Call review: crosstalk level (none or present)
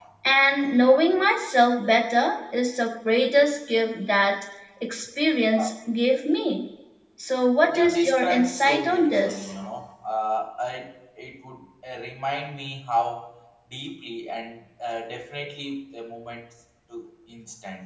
present